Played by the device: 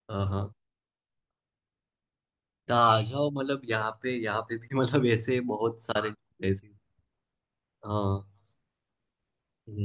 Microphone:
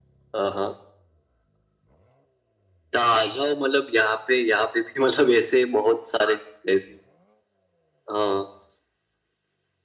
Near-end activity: none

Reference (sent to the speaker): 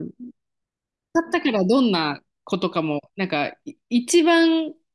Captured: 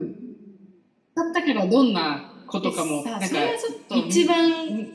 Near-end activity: present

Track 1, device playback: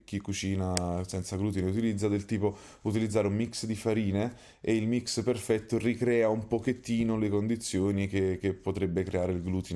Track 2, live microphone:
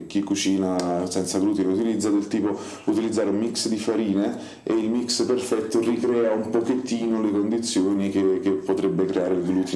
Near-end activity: none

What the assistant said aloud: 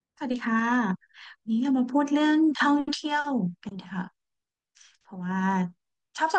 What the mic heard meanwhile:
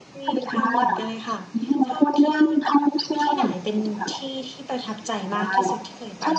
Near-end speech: present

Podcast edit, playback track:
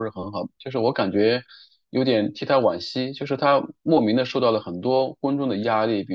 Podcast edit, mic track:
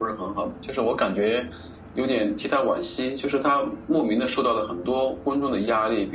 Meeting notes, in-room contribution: none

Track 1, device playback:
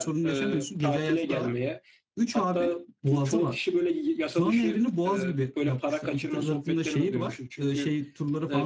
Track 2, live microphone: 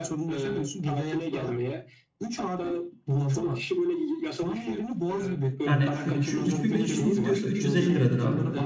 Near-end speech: present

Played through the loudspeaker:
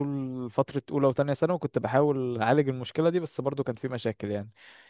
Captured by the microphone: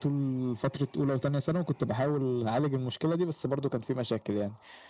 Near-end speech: none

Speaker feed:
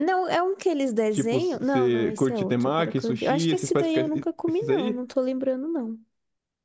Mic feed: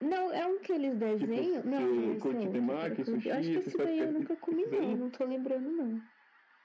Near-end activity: none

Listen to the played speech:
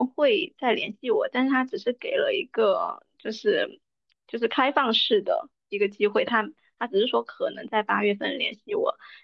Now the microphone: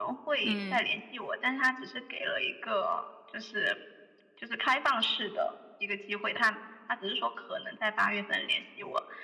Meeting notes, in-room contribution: present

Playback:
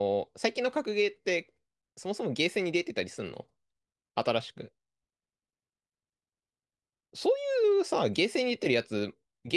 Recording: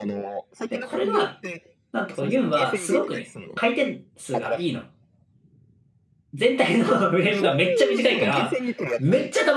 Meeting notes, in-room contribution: present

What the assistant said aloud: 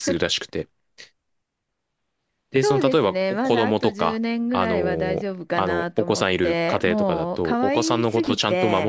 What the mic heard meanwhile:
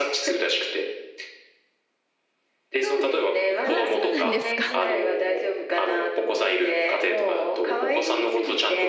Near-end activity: present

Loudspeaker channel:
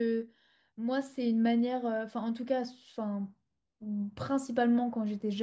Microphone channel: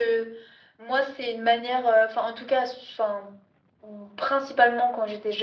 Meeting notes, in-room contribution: none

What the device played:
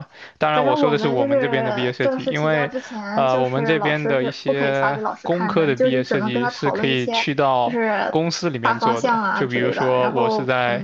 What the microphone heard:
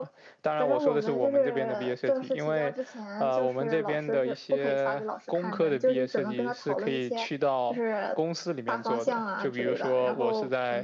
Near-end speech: none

